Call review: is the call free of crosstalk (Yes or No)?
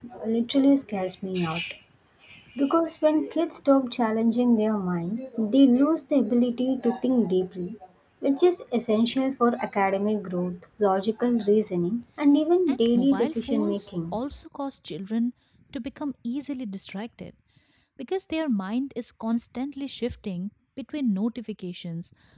No